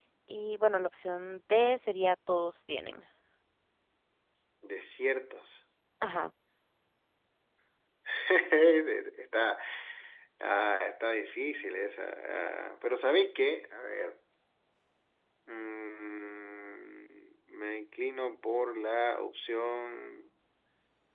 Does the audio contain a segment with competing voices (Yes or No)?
No